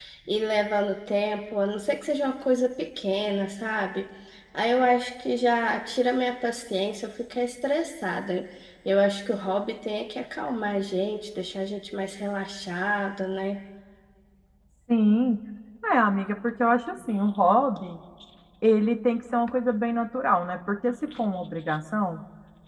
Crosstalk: none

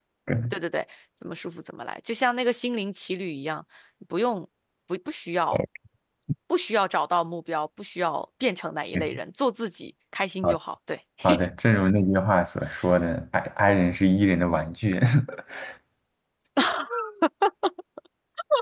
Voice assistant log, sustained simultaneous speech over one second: none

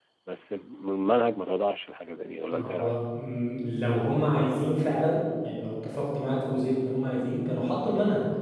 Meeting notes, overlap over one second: none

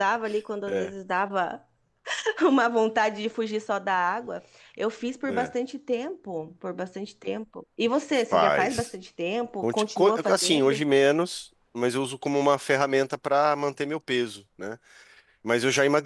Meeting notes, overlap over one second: present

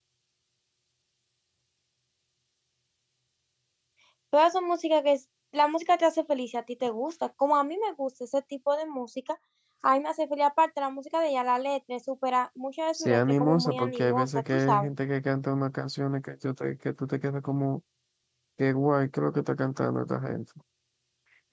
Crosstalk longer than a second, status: present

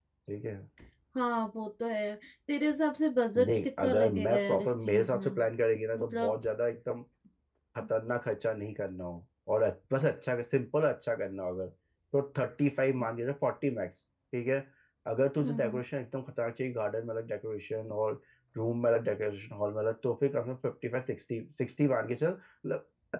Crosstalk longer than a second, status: present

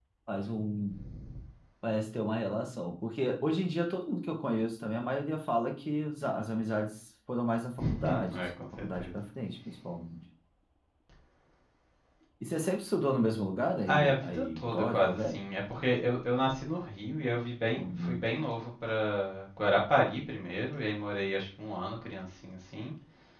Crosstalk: present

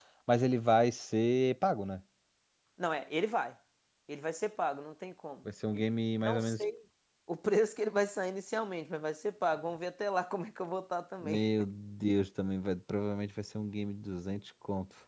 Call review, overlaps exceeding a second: none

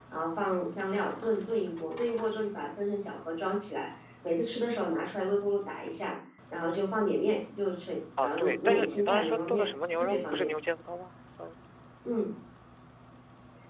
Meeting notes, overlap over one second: present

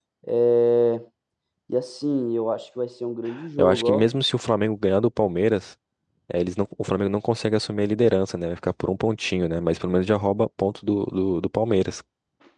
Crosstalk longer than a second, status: none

